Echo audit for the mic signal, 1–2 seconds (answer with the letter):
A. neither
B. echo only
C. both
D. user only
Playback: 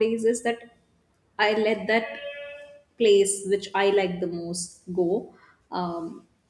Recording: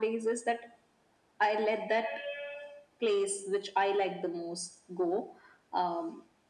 B